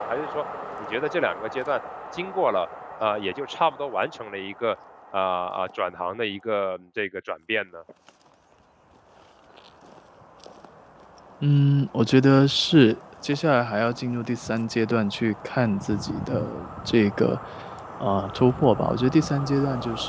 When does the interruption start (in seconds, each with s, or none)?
none